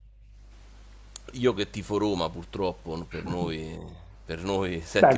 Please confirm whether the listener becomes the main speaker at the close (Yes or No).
Yes